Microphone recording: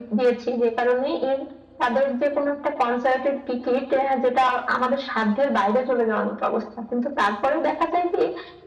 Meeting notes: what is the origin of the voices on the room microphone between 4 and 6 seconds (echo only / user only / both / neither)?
echo only